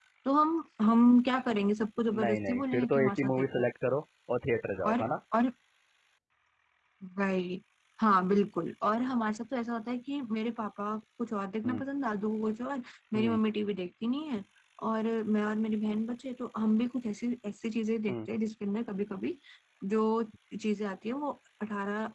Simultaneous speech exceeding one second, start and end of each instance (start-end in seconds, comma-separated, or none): 2.1-3.6